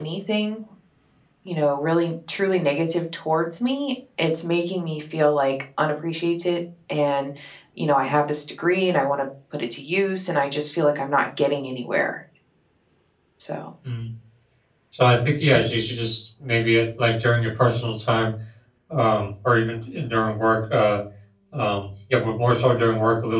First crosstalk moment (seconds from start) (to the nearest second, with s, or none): none